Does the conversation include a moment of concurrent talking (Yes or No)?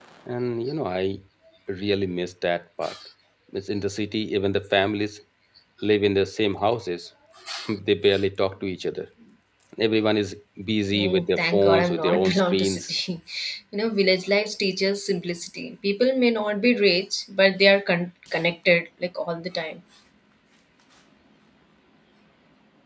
Yes